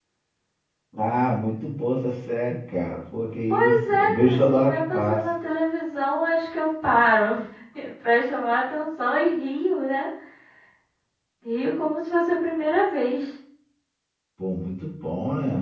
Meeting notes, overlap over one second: present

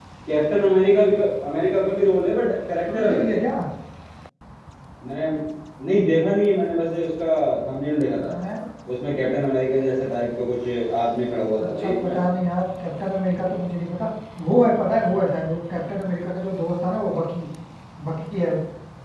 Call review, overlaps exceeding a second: none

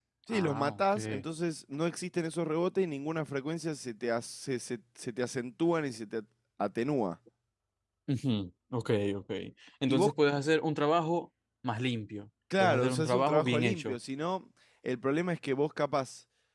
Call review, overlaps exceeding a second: present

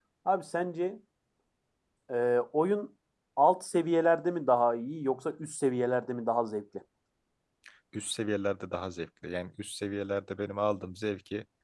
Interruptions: none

